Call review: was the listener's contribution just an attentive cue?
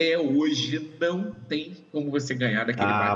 No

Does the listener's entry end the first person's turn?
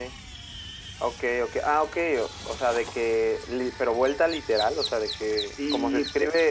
No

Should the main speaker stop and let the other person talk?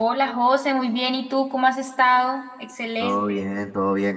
Yes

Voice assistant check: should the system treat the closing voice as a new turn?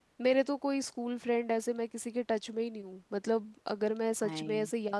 No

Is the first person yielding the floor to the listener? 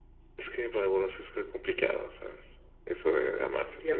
Yes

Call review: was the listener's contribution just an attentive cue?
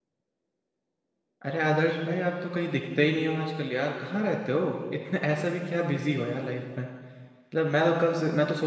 Yes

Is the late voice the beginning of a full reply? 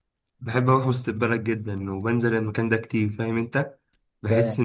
No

